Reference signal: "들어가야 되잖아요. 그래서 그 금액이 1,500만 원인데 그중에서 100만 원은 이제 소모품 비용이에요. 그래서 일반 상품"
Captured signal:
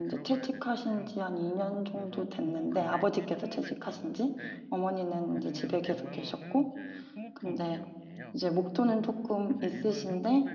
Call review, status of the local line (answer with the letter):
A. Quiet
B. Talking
B